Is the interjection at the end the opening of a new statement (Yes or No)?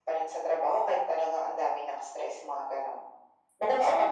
Yes